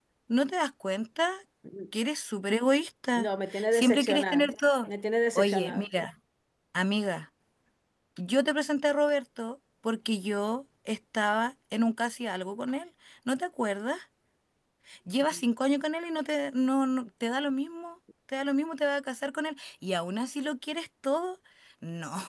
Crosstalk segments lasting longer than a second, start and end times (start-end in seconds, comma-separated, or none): 3.2-4.5